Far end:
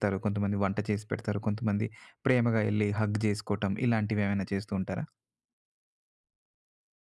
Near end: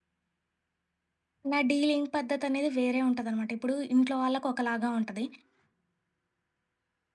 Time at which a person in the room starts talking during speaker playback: 1.5 s

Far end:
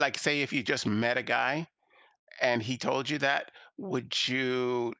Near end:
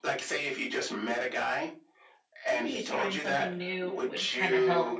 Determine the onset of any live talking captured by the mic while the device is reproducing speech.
2.5 s

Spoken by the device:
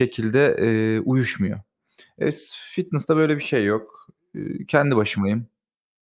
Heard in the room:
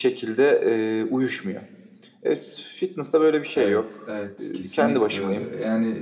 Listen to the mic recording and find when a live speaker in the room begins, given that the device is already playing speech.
3.5 s

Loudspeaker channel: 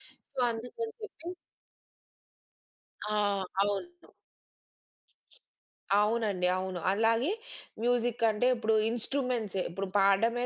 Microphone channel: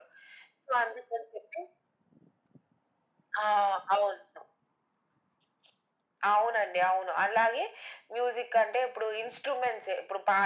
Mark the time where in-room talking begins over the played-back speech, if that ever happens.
none

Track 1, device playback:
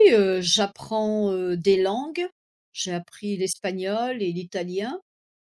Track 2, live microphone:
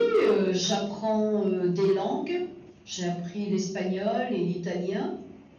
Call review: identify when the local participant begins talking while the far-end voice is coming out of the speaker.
none

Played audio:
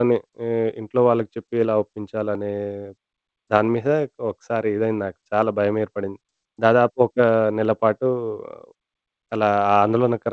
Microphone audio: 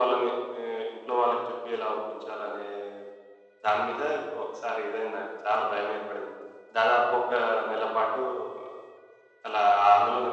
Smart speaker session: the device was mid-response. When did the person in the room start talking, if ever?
none

